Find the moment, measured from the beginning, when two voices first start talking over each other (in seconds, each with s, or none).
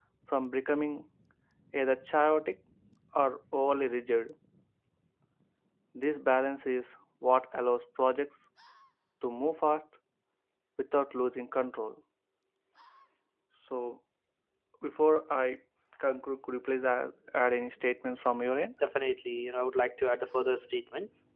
none